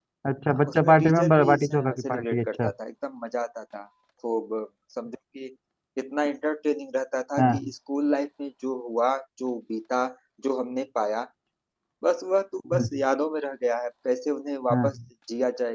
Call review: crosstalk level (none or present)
present